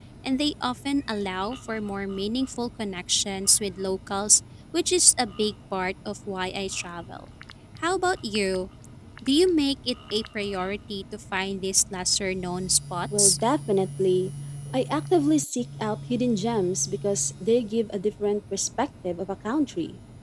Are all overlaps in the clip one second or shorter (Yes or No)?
Yes